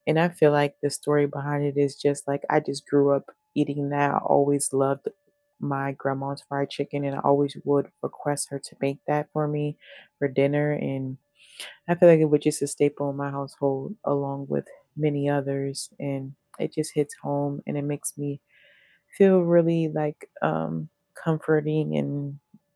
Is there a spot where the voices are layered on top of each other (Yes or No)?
No